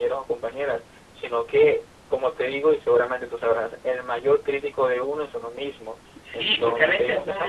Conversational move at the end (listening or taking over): taking over